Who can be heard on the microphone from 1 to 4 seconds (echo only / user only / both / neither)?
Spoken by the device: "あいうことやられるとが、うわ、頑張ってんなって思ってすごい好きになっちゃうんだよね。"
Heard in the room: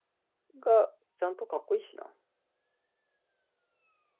user only